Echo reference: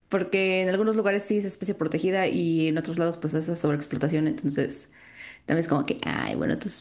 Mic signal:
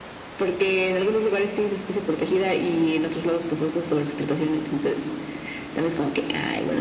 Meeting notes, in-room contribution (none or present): none